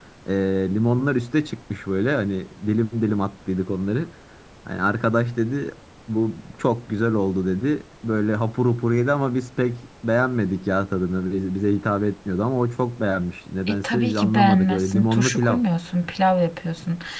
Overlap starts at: 14 s

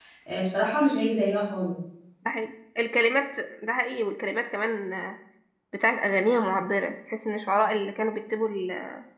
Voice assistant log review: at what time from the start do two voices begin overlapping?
none

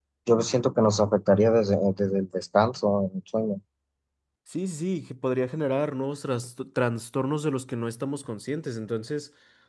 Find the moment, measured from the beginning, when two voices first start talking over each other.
none

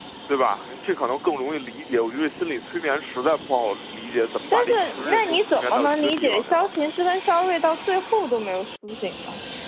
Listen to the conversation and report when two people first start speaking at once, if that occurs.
5 s

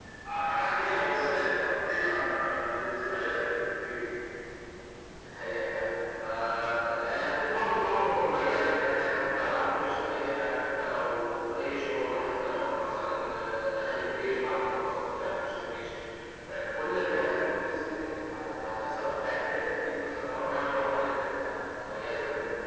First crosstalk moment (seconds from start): none

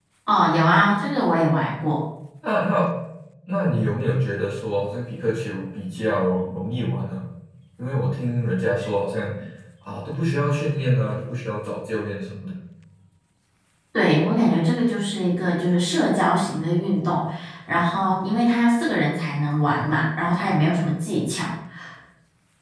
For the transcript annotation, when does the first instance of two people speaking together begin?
none

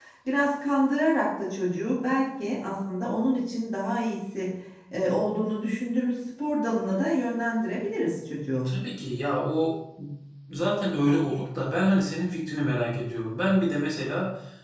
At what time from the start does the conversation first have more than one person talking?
none

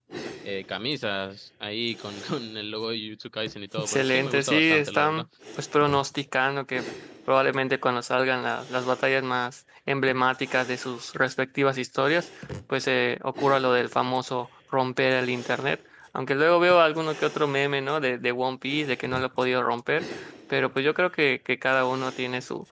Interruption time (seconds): 4 s

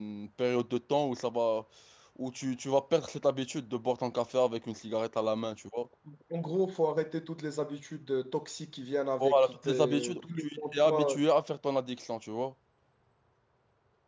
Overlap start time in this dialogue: 9 s

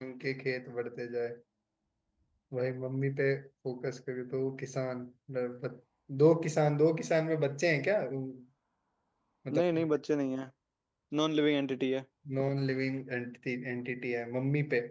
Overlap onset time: none

